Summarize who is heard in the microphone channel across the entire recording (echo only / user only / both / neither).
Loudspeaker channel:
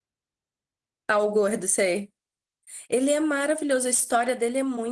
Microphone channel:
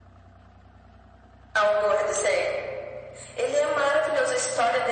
echo only